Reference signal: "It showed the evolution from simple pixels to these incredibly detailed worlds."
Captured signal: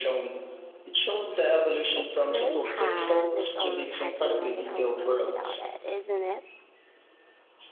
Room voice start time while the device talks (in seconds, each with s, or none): 2.0 s